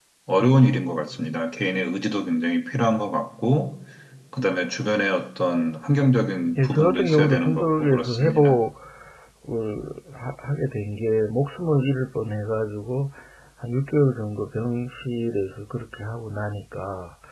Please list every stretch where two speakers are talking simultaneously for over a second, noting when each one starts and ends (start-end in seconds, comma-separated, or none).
6.6-8.6